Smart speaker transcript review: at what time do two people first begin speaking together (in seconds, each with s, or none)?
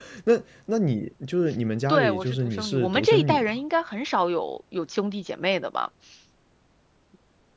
1.9 s